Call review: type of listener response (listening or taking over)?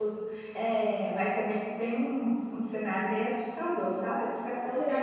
listening